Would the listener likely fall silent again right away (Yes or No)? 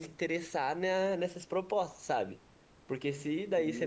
Yes